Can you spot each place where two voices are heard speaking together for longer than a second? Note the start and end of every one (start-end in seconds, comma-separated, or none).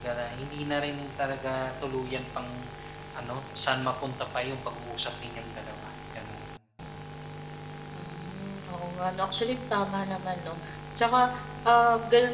none